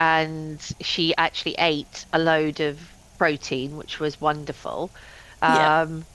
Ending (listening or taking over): listening